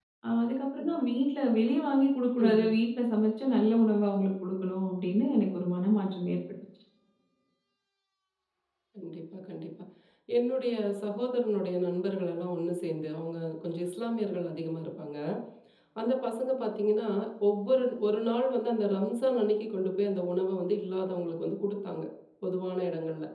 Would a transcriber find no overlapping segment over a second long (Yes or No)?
Yes